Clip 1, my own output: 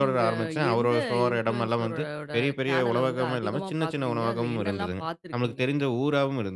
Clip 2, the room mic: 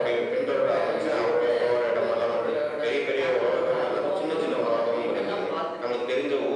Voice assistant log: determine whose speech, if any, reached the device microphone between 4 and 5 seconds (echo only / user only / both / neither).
both